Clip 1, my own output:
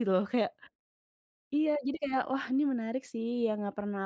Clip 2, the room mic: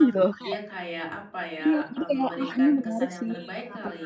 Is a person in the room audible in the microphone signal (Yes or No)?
Yes